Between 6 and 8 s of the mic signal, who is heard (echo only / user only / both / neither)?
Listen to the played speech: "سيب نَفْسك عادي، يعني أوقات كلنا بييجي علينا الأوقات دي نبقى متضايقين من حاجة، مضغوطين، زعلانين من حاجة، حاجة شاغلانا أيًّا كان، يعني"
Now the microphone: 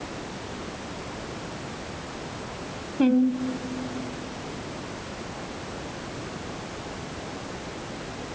neither